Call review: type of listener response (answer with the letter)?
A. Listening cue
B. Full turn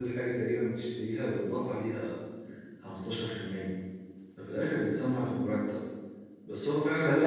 A